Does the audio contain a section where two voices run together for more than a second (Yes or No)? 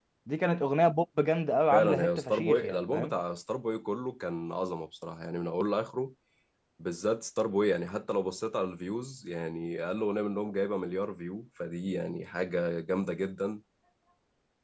Yes